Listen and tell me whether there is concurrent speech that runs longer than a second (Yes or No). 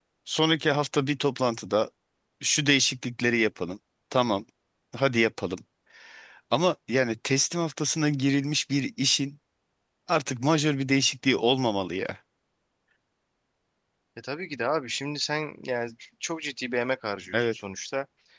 No